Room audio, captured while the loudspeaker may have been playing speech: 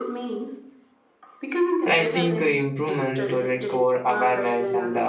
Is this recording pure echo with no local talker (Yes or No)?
No